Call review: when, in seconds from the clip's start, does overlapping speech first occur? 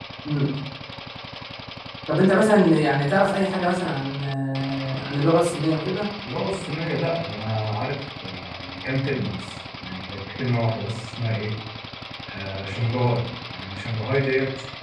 none

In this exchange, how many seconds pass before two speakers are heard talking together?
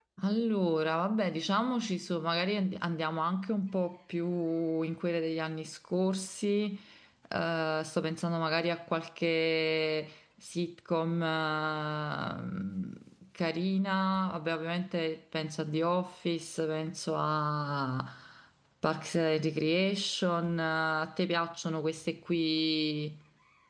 none

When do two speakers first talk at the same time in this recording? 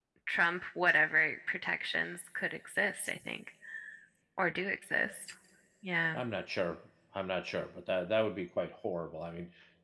none

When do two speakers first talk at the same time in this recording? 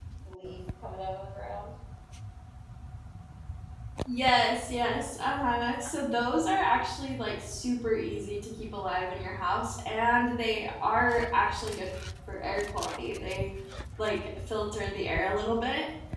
none

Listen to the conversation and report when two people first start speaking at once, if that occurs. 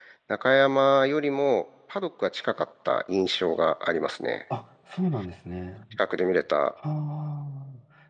none

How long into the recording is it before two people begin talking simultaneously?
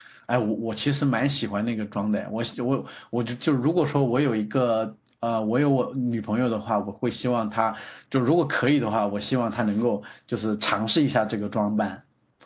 none

